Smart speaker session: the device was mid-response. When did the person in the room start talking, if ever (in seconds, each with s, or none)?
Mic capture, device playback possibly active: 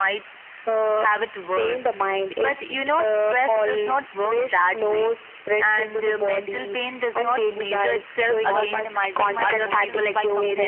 8.4 s